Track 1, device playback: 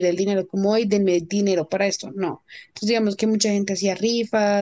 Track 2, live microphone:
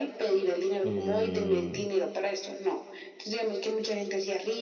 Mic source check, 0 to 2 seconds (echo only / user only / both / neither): both